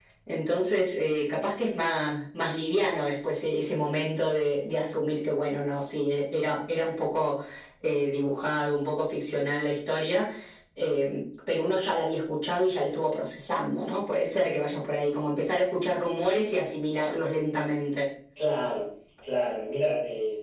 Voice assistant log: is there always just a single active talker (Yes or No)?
Yes